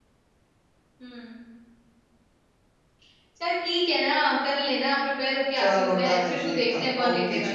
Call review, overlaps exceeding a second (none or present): present